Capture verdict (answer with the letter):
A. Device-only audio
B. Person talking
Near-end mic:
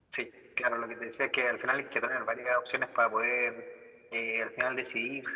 A